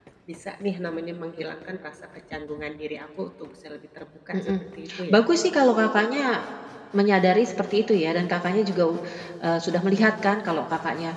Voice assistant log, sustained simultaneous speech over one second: none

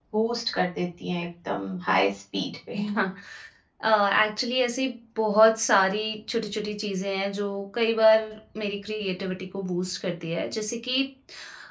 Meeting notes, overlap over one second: none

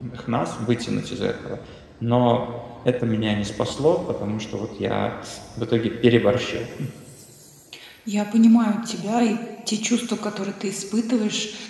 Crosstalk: none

